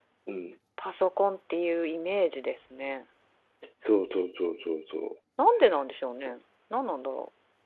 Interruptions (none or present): none